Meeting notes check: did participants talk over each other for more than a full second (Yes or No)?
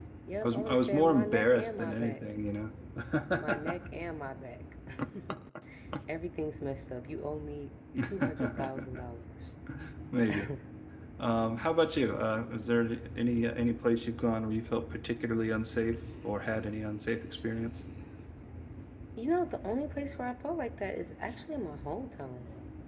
Yes